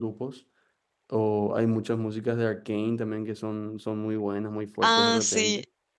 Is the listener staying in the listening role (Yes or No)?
No